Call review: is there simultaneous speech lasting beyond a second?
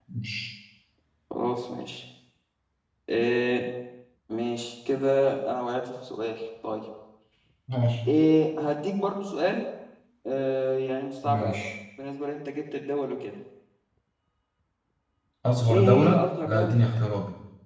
Yes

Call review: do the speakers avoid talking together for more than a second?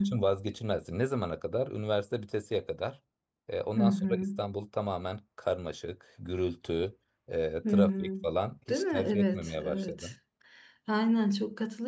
No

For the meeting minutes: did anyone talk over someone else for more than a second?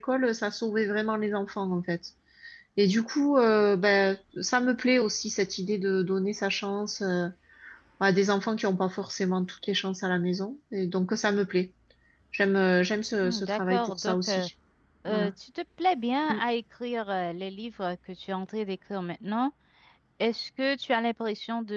Yes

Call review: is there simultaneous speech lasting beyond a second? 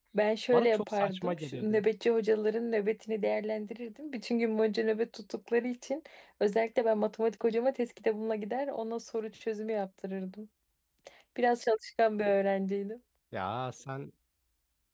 Yes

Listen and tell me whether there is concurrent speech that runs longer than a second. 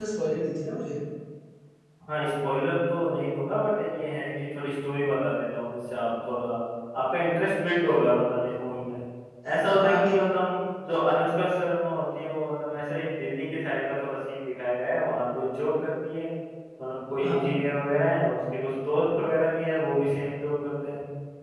No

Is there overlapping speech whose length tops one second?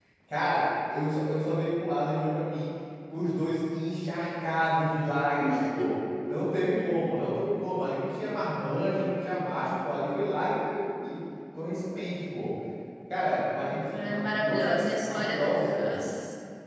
Yes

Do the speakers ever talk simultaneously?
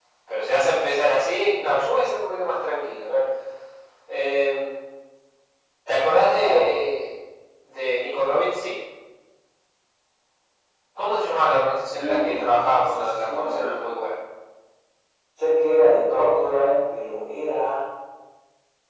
Yes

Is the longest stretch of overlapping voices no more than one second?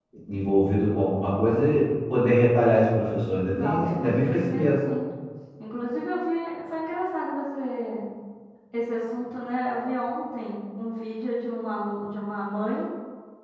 No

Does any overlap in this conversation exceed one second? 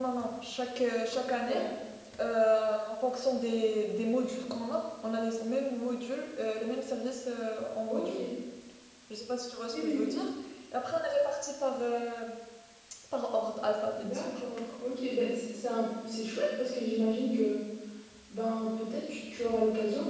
No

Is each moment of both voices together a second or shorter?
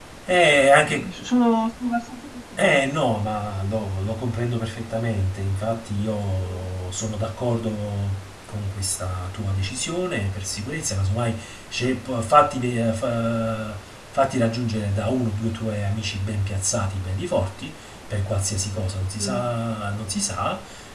Yes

